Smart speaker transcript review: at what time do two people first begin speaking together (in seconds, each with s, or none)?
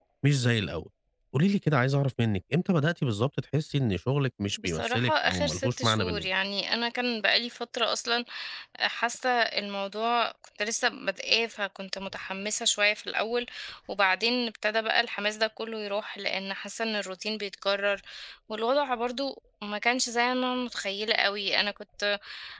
4.6 s